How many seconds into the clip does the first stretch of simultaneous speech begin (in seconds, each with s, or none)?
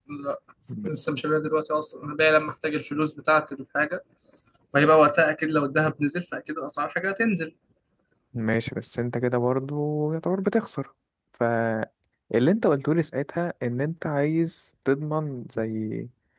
none